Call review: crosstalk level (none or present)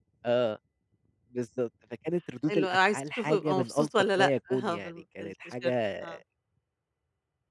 present